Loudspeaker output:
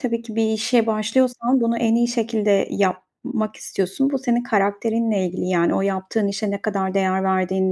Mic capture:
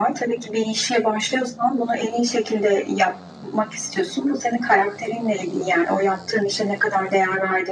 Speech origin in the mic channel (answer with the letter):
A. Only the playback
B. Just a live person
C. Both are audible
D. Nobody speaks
A